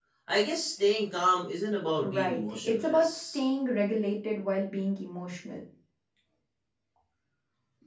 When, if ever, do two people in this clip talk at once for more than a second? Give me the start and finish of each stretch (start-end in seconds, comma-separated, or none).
2.0-3.4